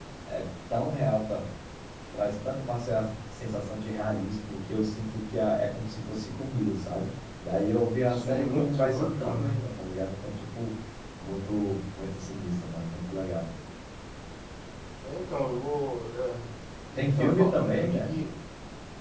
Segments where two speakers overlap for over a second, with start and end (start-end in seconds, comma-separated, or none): 8.1-9.5, 17.0-18.2